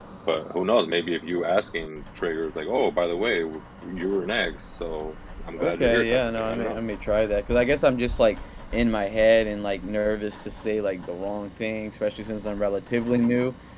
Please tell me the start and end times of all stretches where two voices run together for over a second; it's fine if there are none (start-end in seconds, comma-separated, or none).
5.6-6.8